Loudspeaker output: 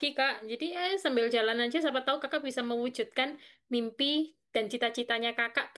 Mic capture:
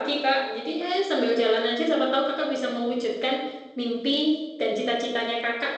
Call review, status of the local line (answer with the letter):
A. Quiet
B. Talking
A